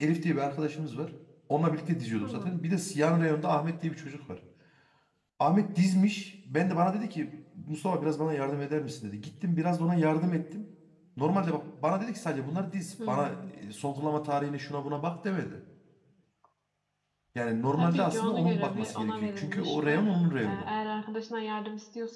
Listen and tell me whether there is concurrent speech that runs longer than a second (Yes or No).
Yes